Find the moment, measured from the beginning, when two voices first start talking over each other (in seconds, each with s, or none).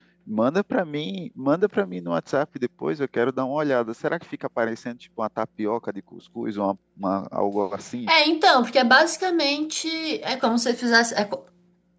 none